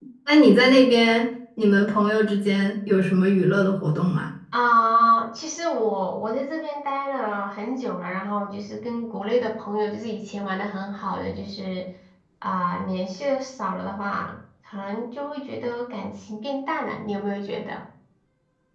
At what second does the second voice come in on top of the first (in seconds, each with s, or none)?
none